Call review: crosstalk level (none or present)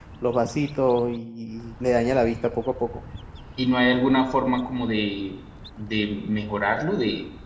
none